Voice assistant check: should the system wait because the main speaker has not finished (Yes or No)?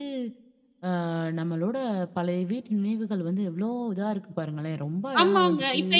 No